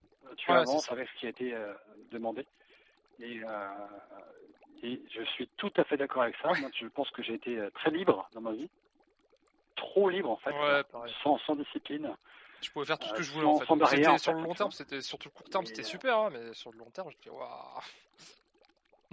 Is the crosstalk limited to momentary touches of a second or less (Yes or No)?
No